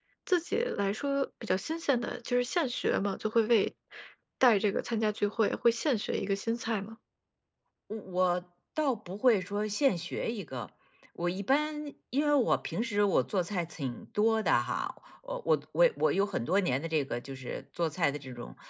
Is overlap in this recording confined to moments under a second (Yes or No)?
Yes